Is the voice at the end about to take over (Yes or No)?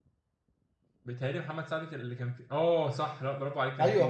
Yes